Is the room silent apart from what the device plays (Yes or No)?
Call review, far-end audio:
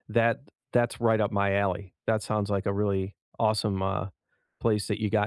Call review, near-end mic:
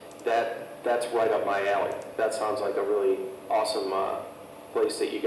Yes